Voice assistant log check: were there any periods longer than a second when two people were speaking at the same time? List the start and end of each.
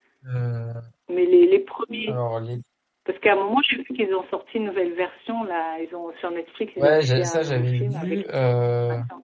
6.8-8.2

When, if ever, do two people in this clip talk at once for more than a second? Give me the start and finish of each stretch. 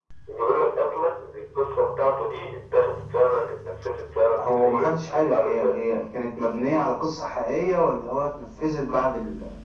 4.4-5.8

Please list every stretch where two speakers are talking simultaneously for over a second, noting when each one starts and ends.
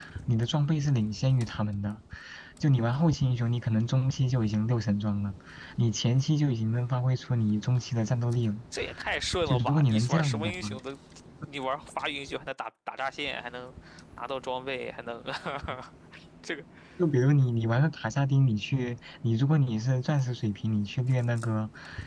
9.5-10.7

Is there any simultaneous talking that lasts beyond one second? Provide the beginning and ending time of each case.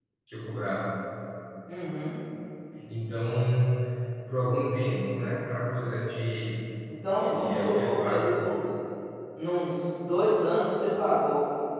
7.1-8.4

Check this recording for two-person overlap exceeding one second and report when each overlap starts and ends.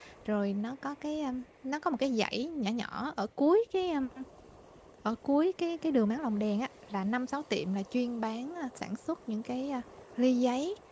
none

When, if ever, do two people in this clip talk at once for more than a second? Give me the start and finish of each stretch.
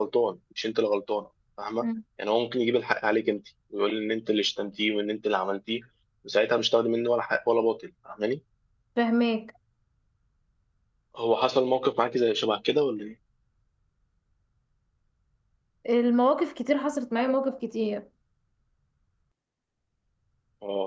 none

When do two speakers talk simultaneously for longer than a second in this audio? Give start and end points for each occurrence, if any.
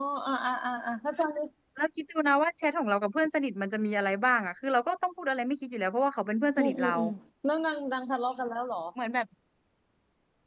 none

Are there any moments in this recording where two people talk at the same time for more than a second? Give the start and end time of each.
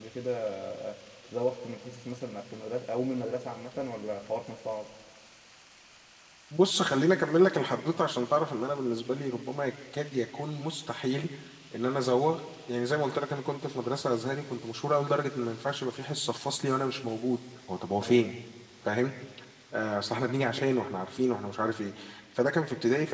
none

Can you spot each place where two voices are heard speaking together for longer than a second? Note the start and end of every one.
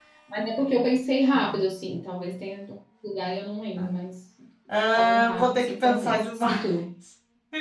4.9-6.6

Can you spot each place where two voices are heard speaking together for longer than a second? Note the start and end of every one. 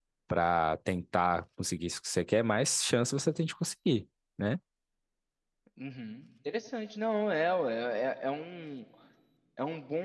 none

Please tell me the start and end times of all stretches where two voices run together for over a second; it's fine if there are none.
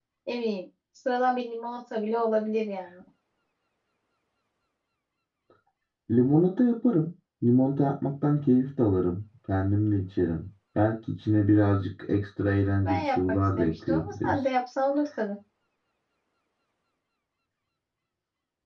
12.8-14.4

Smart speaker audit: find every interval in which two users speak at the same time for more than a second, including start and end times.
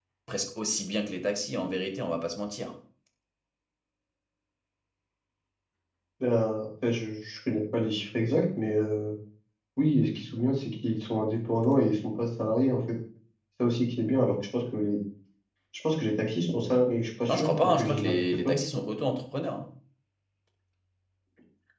17.3-18.6

